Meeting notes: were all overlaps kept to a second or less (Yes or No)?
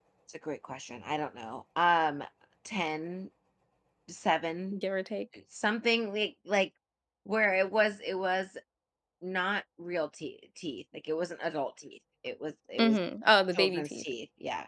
Yes